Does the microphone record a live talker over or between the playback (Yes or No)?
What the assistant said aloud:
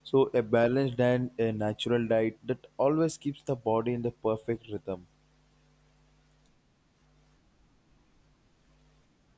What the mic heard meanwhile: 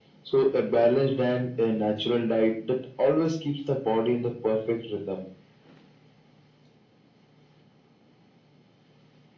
No